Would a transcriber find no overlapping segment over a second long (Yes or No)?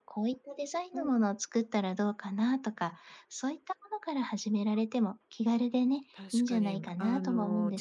No